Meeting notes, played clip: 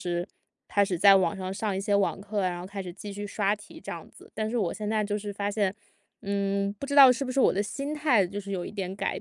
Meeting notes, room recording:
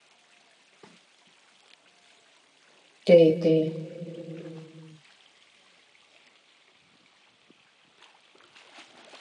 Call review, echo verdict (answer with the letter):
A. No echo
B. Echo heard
A